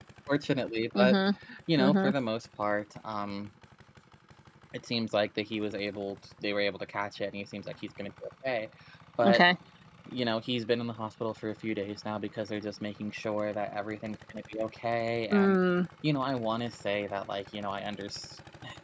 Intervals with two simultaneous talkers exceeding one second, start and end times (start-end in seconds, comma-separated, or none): none